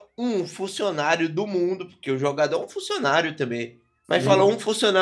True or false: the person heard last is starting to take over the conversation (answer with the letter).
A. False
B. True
A